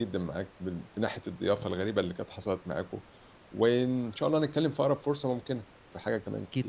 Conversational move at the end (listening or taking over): taking over